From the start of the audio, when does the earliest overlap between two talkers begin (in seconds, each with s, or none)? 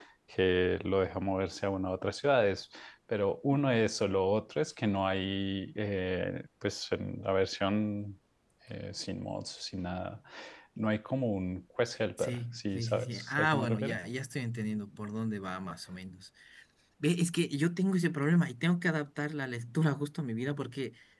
12.2 s